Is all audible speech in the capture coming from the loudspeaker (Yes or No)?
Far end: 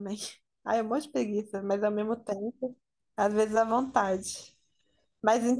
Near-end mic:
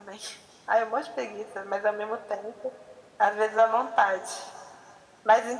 Yes